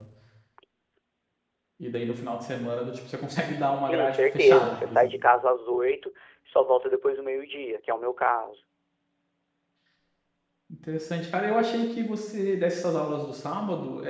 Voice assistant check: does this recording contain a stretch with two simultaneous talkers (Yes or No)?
Yes